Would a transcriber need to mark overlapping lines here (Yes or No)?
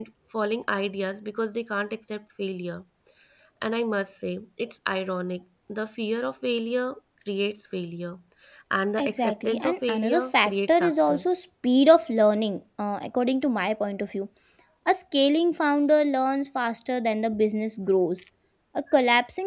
Yes